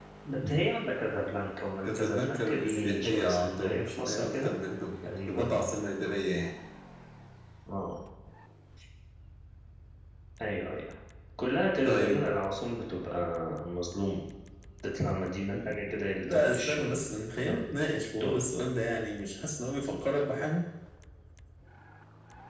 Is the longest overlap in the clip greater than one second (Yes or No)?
Yes